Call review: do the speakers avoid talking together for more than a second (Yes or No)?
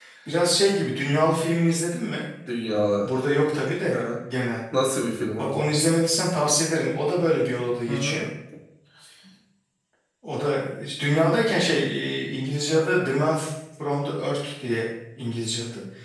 Yes